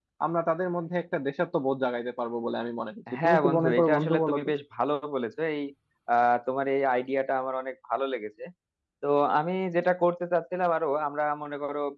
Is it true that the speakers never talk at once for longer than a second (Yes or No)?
No